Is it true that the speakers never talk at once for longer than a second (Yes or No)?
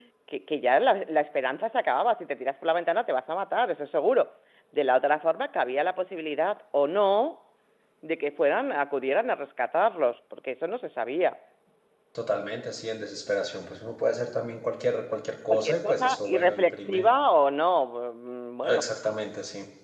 No